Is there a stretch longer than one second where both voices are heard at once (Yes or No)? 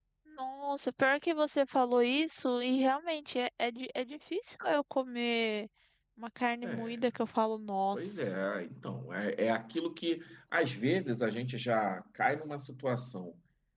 No